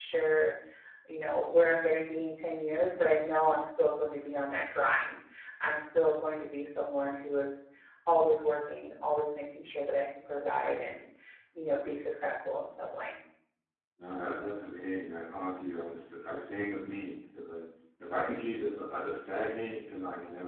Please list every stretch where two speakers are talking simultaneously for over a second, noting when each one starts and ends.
none

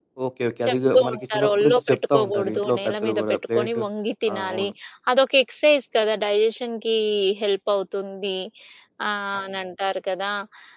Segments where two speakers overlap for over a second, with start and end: 0.7-3.8

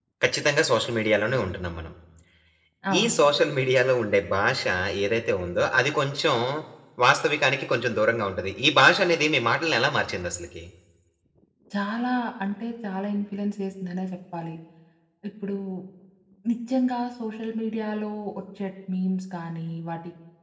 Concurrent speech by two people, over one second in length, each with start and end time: none

